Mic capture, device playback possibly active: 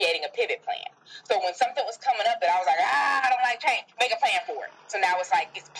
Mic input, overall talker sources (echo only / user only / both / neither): echo only